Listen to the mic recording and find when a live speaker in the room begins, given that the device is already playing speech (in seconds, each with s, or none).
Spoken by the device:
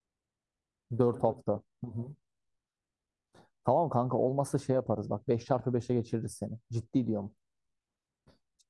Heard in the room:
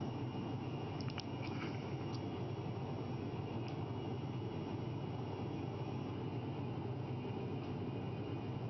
none